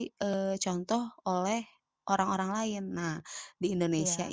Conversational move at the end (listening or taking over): listening